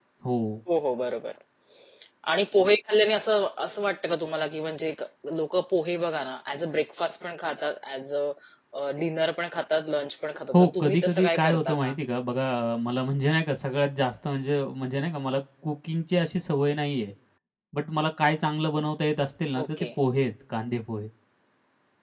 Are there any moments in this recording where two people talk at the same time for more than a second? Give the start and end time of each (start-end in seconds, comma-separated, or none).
10.5-11.9